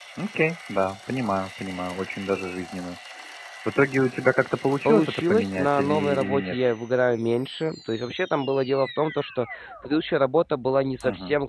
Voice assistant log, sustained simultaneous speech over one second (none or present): present